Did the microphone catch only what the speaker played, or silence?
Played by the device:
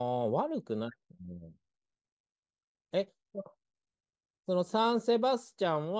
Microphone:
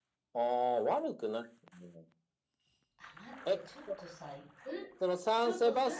No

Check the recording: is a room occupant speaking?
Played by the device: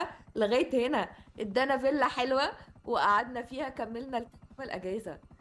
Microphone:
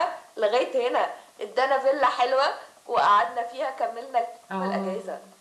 Yes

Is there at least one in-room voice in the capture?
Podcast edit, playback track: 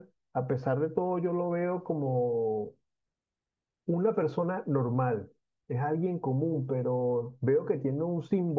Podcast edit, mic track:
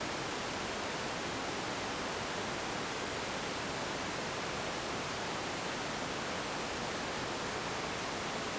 No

